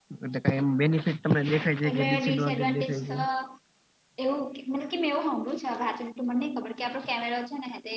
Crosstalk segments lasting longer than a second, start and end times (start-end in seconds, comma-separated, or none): 1.9-3.1